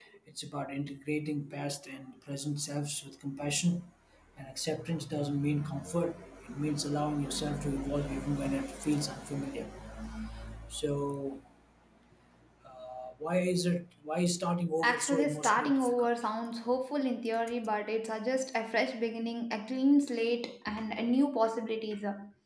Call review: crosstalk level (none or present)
present